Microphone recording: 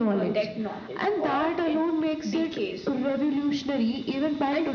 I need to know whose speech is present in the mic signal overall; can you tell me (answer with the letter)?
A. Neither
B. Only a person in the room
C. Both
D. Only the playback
D